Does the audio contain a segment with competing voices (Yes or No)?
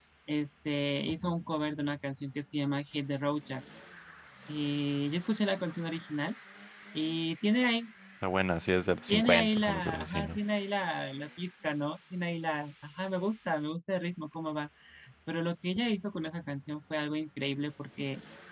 Yes